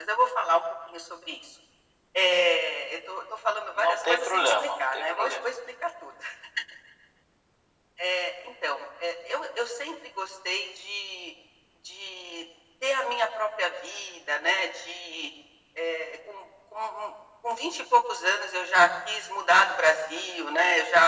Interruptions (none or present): present